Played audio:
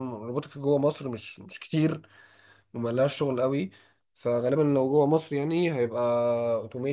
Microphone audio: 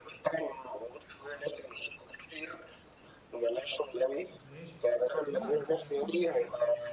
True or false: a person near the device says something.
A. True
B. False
A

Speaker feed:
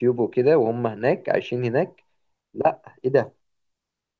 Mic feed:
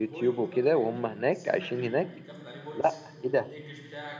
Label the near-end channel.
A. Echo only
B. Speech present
B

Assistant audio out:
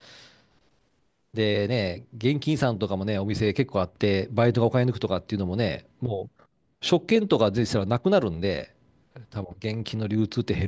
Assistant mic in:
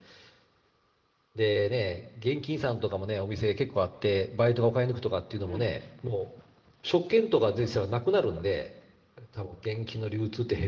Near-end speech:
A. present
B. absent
A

